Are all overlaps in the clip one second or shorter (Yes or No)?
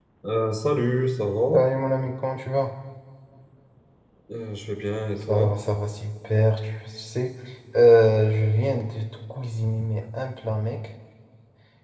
Yes